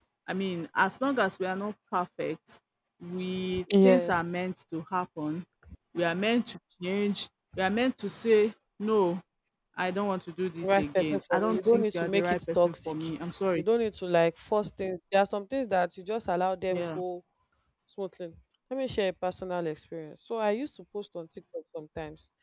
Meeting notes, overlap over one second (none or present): present